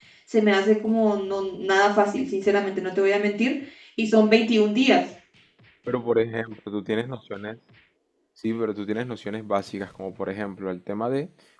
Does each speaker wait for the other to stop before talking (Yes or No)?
Yes